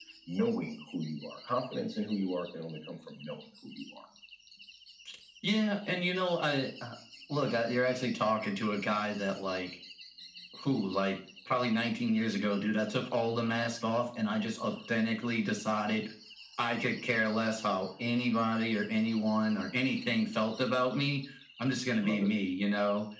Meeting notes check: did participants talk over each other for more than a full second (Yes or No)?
No